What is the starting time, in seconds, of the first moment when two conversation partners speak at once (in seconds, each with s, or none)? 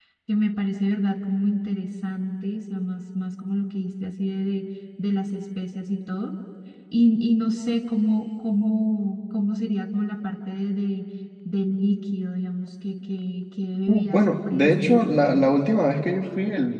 13.9 s